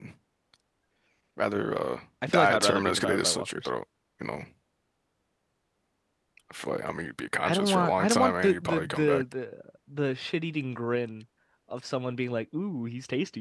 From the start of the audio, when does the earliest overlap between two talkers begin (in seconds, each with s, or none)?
2.3 s